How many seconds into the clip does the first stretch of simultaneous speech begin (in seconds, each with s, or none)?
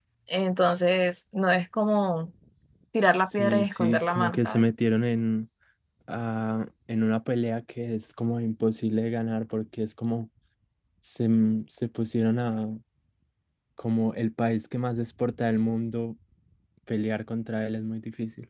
3.3 s